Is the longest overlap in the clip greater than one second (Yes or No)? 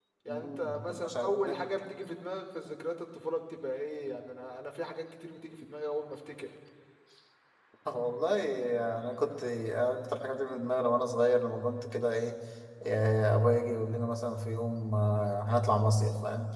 Yes